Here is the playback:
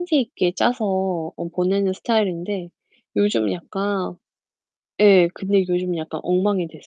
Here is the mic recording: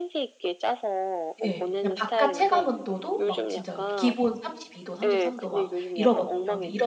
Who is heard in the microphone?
both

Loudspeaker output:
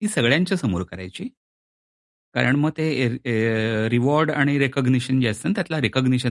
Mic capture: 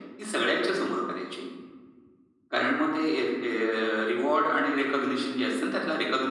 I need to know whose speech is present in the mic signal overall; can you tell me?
echo only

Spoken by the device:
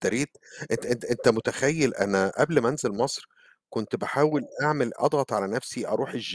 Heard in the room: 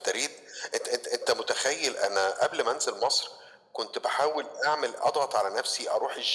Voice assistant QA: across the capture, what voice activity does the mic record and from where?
echo only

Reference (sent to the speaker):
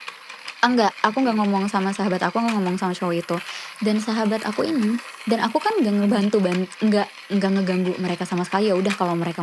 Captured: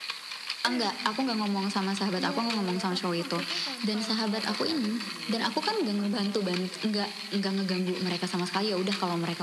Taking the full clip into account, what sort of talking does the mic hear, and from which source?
both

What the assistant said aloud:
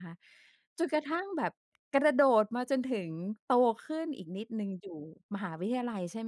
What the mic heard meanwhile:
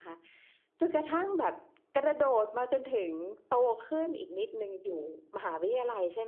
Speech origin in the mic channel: echo only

